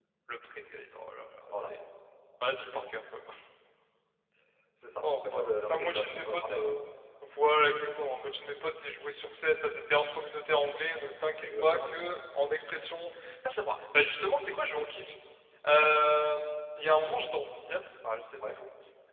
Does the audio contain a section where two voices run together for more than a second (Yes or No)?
Yes